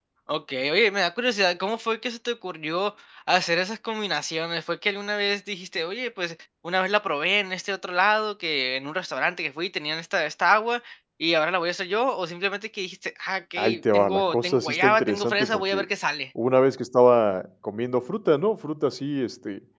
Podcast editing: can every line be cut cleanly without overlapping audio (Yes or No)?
No